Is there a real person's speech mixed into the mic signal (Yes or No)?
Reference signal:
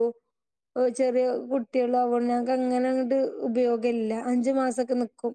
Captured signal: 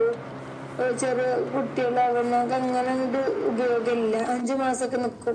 No